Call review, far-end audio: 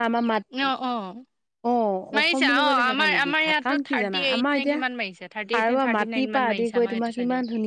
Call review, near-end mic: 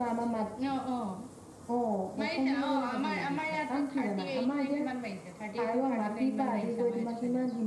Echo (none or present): present